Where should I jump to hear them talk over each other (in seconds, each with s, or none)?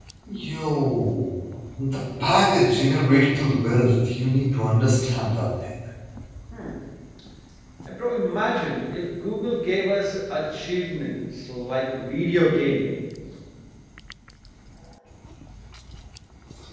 none